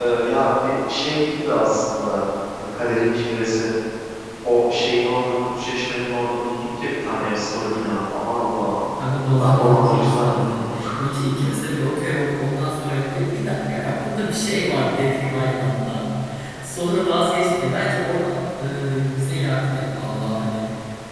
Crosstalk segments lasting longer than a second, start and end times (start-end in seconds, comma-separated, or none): 9.4-10.8